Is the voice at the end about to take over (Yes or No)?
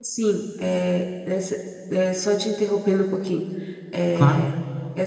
No